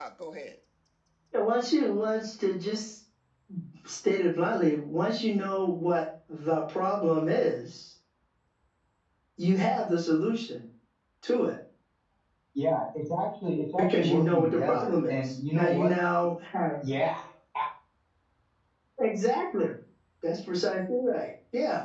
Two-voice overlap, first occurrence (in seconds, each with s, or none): 13.8 s